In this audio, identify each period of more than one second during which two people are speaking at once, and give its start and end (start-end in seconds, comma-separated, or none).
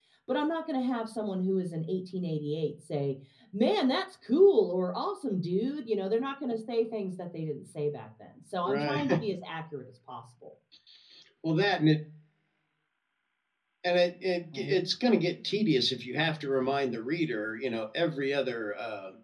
none